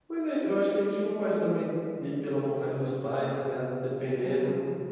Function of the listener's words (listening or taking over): listening